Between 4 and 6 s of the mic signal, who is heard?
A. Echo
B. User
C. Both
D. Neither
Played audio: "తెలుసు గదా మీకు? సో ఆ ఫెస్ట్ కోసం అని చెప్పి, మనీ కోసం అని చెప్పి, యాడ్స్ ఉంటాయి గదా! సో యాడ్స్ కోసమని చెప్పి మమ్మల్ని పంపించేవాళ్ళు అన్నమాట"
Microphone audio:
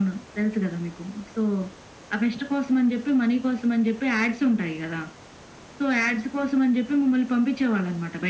A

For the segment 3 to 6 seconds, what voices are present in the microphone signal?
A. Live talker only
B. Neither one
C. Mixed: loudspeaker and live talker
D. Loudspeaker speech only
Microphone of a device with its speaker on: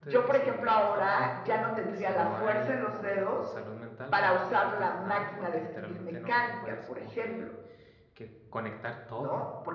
C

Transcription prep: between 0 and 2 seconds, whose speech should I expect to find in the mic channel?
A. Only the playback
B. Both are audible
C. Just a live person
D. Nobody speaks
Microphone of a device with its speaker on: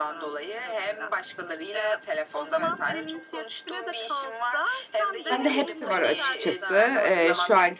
A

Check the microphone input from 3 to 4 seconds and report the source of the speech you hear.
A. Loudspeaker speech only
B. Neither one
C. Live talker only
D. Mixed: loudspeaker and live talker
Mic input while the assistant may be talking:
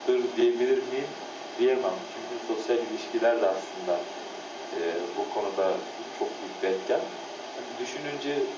A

